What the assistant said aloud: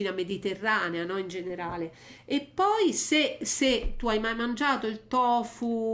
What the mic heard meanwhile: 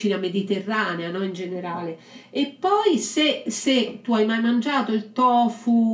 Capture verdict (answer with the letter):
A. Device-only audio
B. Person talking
A